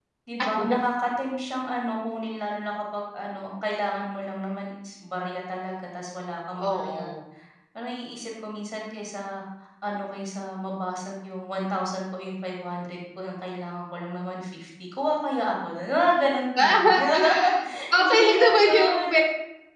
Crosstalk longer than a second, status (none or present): present